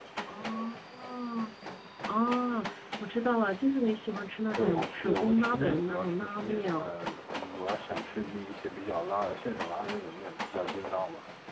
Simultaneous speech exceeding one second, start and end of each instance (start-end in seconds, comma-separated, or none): 4.6-6.9